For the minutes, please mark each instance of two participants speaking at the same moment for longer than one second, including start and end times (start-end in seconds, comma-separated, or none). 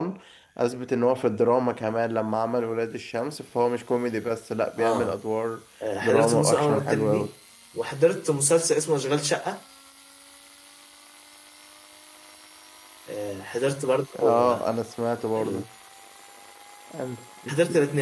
6.0-7.3